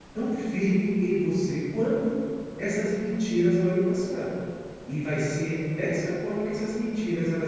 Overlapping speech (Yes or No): No